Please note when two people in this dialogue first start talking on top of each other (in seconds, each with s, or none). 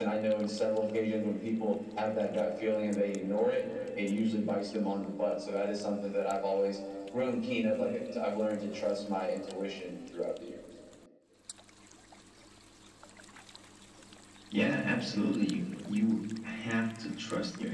none